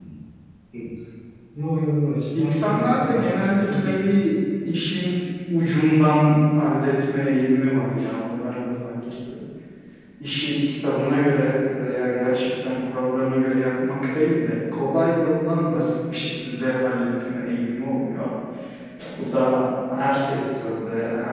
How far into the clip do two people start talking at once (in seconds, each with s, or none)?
2.4 s